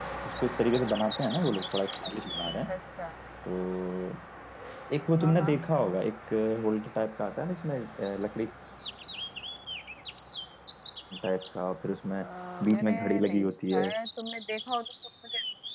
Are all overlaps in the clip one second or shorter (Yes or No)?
No